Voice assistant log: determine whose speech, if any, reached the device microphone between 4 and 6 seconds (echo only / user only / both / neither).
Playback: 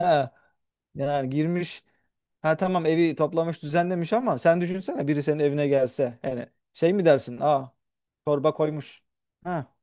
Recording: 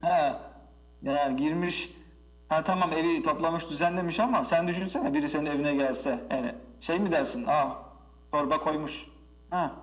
echo only